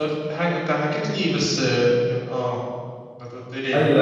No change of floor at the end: No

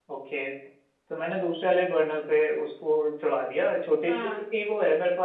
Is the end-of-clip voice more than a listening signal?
No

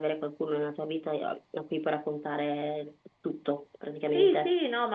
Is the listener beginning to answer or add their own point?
Yes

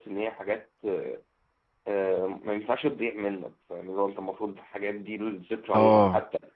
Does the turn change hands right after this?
No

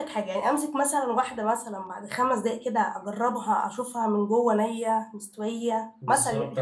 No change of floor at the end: No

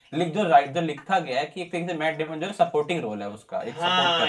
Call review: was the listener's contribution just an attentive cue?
No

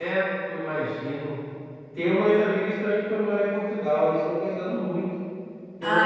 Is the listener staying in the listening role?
Yes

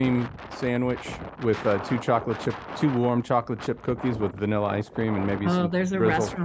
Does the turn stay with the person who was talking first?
No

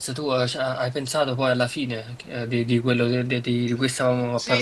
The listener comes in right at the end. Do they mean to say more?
Yes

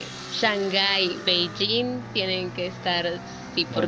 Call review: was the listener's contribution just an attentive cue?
No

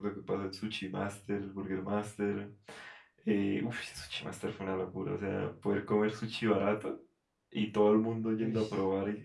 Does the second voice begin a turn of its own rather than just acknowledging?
No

